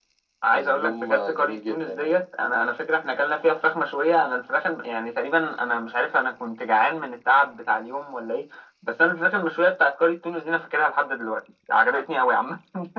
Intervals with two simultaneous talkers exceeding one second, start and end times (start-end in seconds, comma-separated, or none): 0.5-2.2